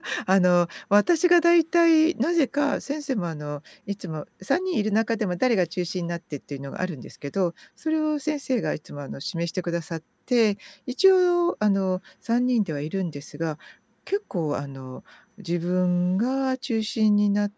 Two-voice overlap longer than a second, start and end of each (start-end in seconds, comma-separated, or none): none